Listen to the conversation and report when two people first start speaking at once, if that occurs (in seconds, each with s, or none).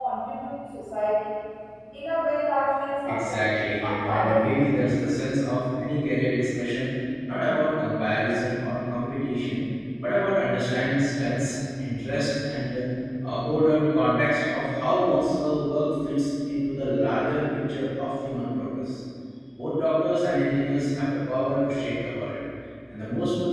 3.0 s